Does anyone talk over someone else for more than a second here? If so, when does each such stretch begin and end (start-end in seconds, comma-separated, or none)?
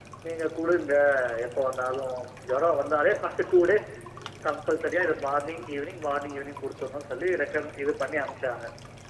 none